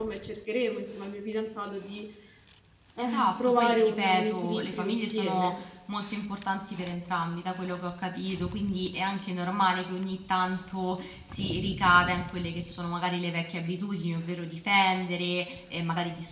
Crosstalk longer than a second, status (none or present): present